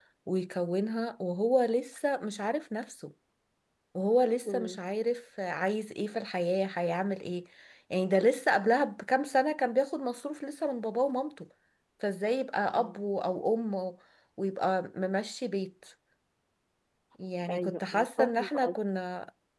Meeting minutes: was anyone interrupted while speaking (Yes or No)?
Yes